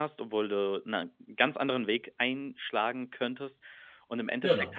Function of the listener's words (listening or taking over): listening